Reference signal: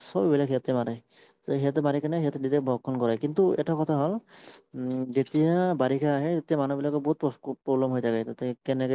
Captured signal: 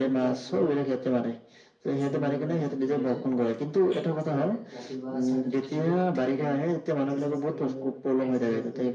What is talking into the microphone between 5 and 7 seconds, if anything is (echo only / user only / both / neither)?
both